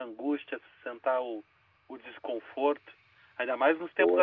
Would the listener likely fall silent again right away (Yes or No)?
Yes